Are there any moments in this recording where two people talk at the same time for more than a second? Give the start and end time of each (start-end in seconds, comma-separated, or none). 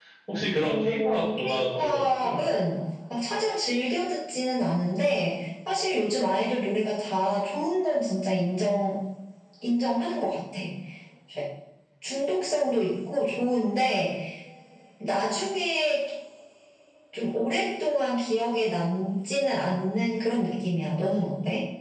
0.6-2.4